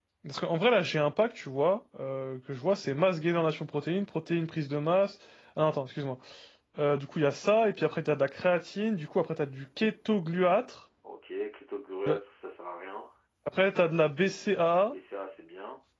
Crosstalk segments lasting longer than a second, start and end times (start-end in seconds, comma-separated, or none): none